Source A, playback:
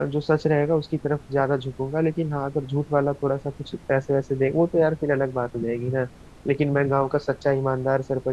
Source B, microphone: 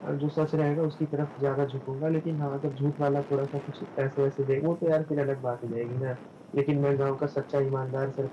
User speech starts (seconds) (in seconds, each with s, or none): none